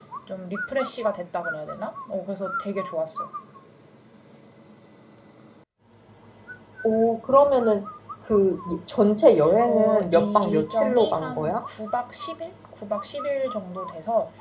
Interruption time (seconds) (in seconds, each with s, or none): 9.5 s